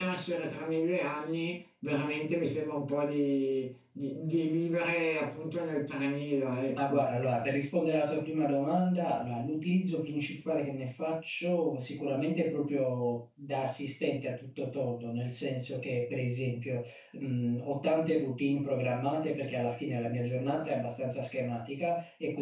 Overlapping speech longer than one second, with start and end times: none

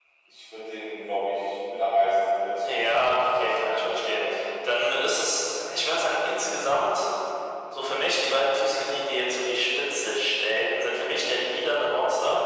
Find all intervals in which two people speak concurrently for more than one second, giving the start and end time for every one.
2.7-4.2

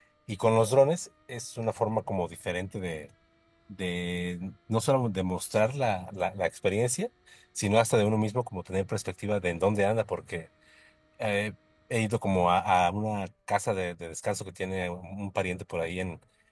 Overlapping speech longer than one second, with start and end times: none

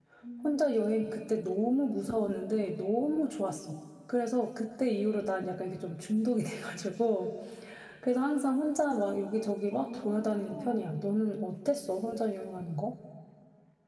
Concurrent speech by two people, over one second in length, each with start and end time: 9.7-10.9

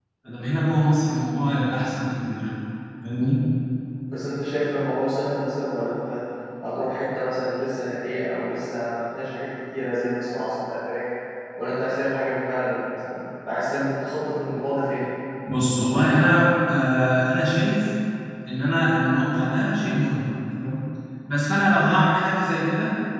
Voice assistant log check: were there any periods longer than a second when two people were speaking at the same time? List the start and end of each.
none

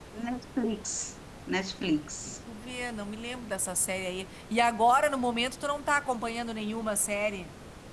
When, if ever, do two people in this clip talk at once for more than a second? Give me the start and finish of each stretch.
none

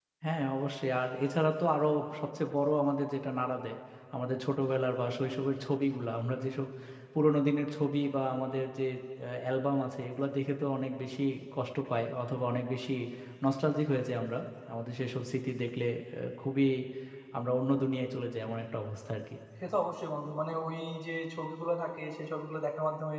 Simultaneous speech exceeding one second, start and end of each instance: none

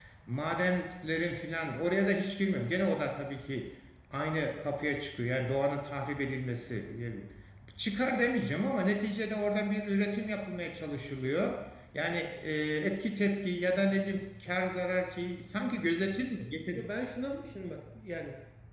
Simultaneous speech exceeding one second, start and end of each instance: none

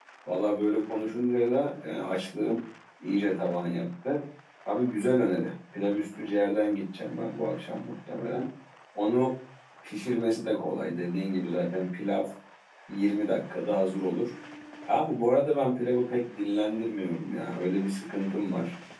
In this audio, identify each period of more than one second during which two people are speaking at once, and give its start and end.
none

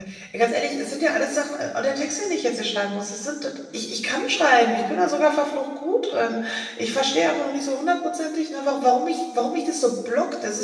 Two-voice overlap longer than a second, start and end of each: none

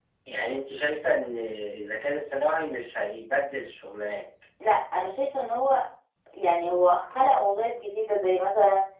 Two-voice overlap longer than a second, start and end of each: none

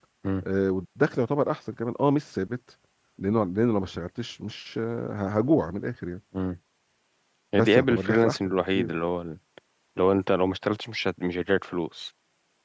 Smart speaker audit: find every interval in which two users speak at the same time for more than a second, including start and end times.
7.5-8.9

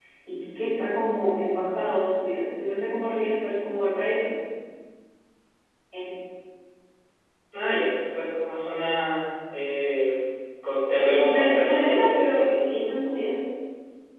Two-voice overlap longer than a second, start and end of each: 11.0-12.5

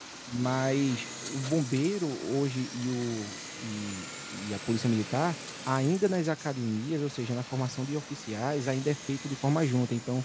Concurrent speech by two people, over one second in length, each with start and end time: none

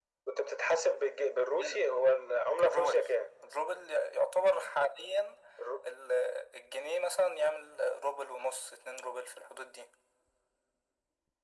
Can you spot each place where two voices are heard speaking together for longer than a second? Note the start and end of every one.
none

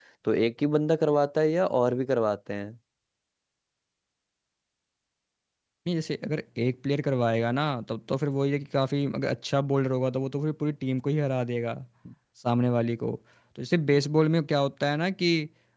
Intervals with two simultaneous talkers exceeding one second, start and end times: none

